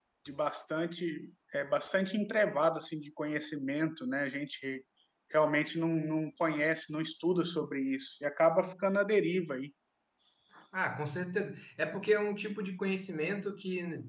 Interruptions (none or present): none